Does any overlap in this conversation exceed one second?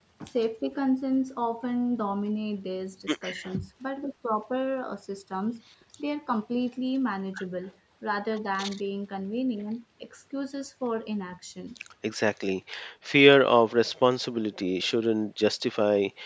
No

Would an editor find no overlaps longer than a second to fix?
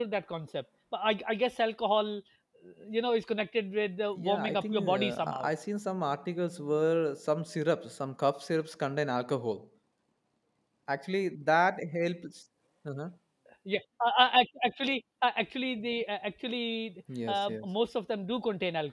No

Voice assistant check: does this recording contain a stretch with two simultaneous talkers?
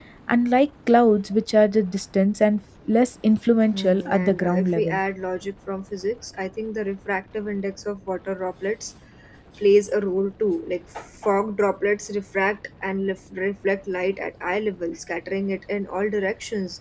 Yes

